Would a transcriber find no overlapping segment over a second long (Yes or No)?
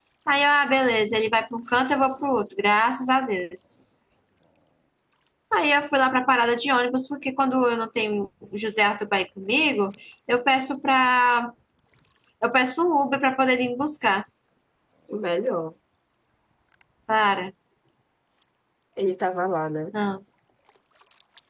Yes